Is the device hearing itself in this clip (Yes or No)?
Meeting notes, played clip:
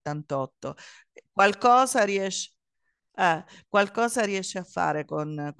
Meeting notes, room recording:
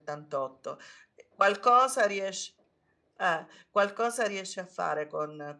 Yes